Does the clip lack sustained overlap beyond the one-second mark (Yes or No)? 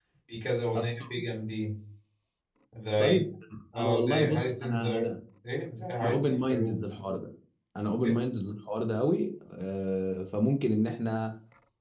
No